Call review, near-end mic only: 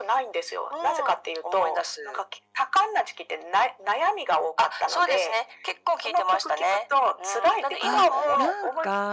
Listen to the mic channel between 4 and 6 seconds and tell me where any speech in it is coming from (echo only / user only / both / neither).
echo only